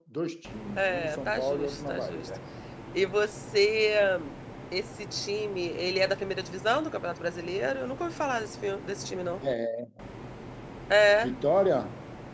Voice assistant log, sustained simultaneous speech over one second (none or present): present